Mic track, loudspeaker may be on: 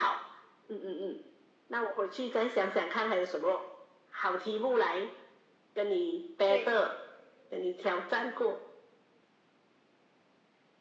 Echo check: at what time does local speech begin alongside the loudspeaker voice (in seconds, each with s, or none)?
6.5 s